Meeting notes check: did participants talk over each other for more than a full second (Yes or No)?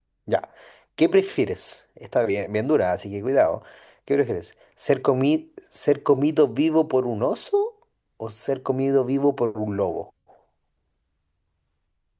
No